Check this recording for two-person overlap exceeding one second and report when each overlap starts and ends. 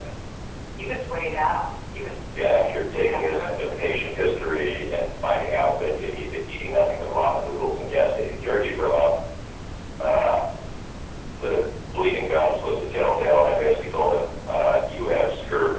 2.4-3.9

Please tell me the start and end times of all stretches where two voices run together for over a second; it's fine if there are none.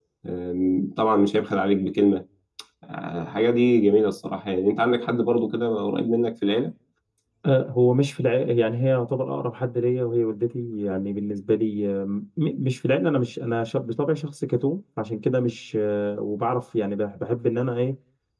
none

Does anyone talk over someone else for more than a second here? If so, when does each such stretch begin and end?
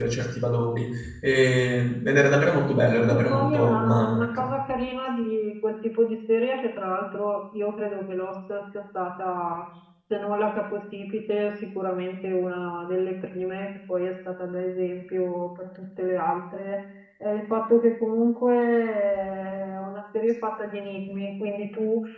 3.1-4.5

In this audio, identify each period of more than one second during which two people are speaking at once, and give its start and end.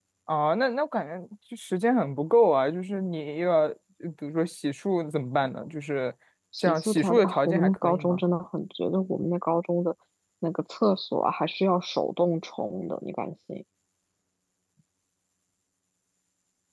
6.6-8.2

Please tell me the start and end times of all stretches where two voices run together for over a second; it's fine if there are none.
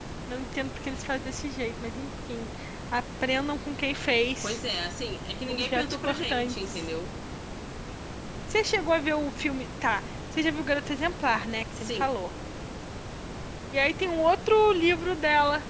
5.5-6.8

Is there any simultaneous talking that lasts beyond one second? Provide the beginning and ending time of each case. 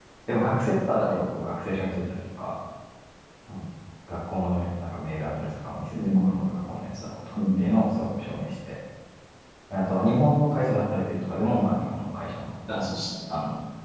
none

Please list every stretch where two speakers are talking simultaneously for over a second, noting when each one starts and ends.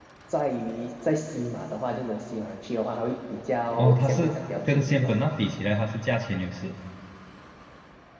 3.8-5.1

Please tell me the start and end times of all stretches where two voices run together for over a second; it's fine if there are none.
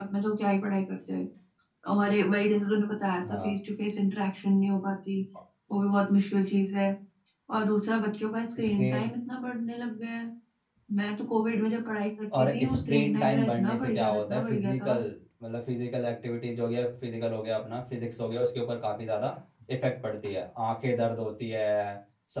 12.4-15.0

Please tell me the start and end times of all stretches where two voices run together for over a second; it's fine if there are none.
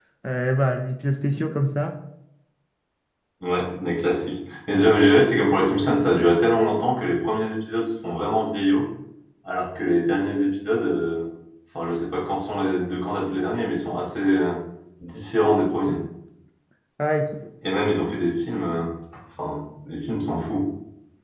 none

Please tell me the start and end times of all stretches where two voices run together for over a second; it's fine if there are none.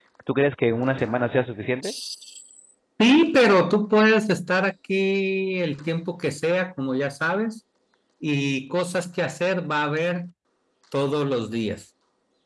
none

